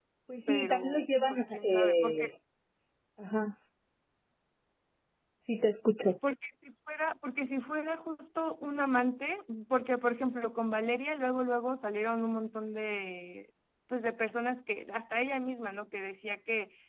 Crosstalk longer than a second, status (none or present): present